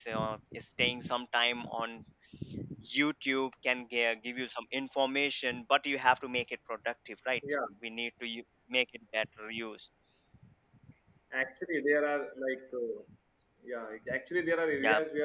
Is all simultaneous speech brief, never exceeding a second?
Yes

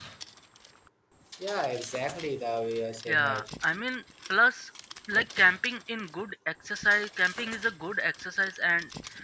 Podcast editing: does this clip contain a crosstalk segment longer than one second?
No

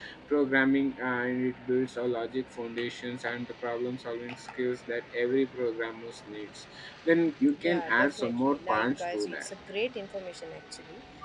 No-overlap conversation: No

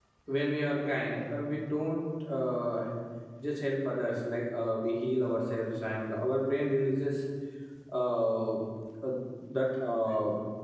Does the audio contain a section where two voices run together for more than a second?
No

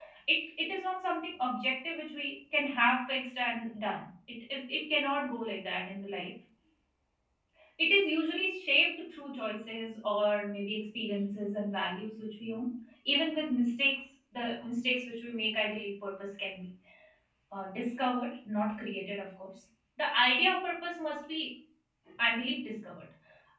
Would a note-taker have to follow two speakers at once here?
No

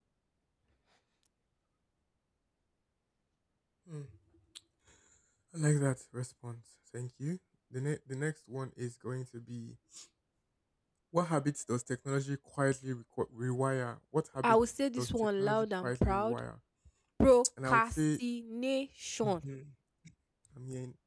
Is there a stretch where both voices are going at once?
Yes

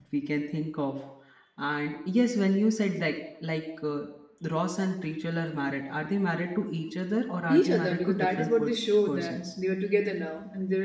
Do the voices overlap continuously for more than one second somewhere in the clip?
Yes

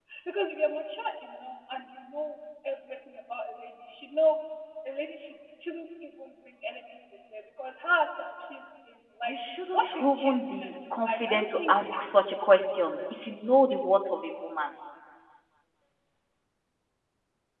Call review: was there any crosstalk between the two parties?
Yes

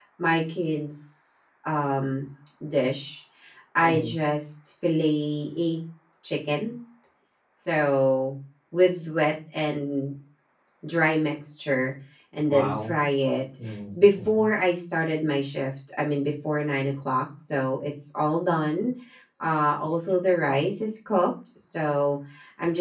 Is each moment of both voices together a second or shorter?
Yes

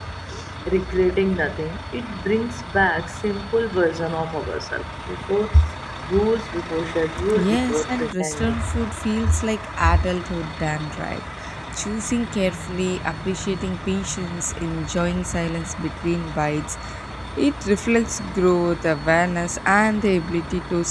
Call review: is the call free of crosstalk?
No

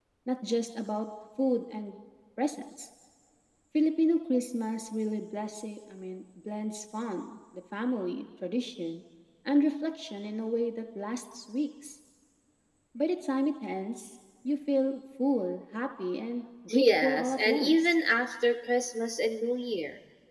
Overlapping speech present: Yes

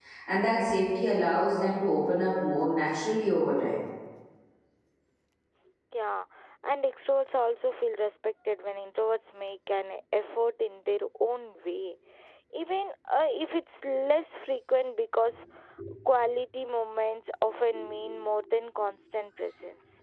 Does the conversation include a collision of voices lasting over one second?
No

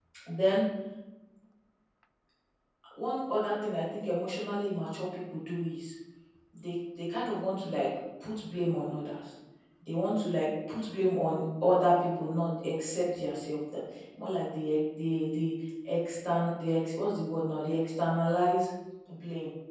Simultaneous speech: No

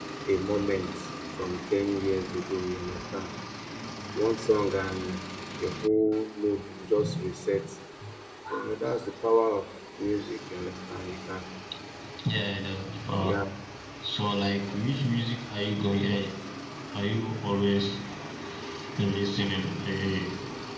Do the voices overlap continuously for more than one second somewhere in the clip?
No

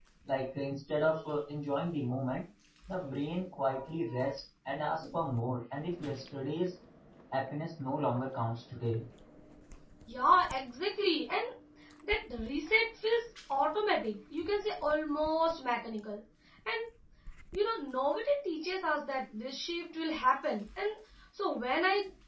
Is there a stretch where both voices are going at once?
No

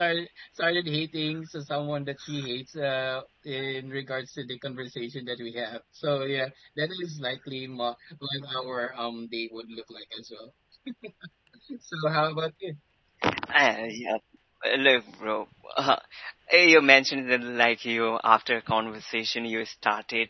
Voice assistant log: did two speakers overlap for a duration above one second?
No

